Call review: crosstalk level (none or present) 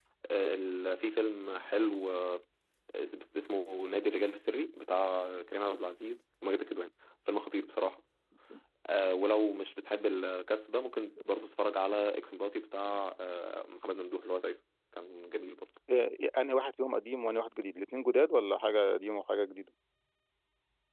none